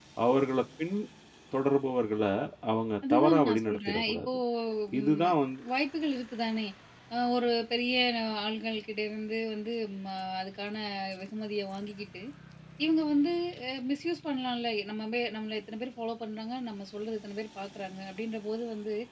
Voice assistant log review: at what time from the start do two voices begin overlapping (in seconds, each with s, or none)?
3.1 s